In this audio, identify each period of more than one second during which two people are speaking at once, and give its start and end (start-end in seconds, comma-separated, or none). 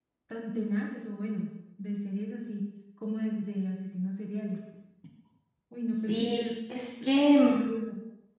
5.9-7.7